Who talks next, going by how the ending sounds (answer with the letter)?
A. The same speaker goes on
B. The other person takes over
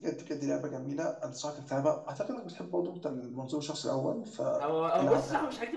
B